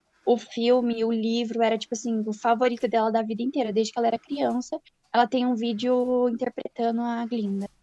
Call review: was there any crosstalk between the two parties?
No

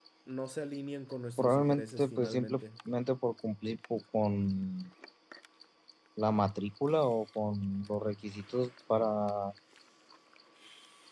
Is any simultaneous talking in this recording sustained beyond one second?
Yes, from 1.4 s

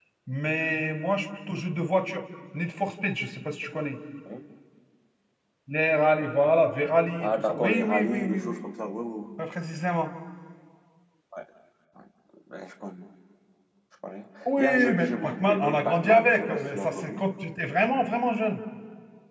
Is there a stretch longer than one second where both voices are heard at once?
Yes, from 7.2 s

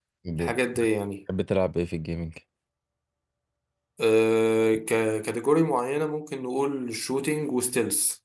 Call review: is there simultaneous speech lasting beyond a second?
No

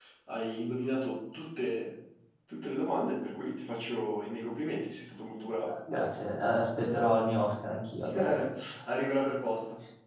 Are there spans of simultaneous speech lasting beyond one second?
No

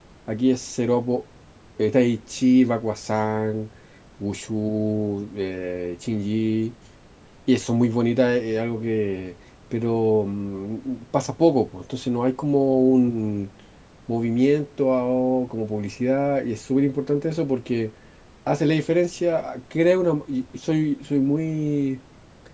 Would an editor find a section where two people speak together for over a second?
No

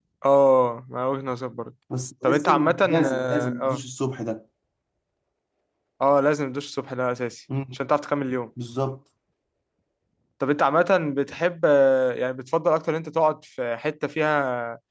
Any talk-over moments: Yes, from 2.2 s

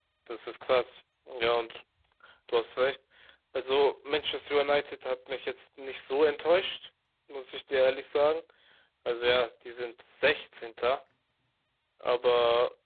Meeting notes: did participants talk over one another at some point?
No

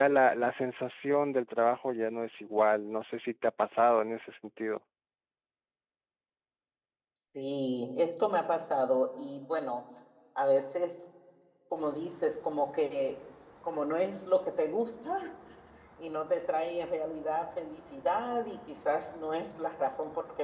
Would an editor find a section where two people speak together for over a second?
No

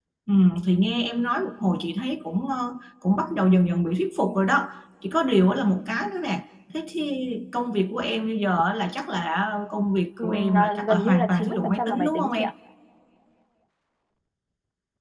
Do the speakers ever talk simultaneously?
Yes, from 10.2 s

